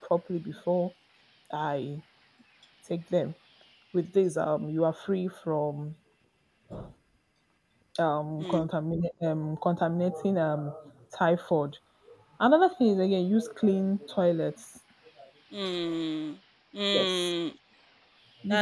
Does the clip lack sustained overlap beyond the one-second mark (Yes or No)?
Yes